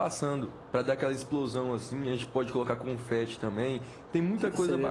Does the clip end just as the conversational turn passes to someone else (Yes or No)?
Yes